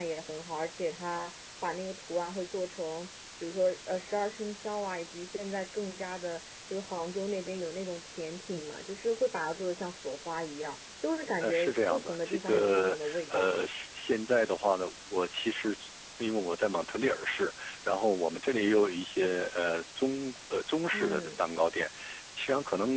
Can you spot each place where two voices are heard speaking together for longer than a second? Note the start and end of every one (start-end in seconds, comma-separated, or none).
11.4-13.6